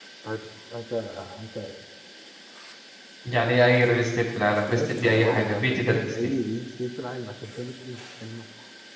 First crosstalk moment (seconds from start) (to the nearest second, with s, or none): 5 s